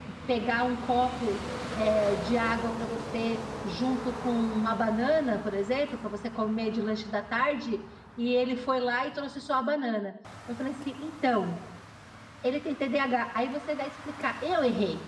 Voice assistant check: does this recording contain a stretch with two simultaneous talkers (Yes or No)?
No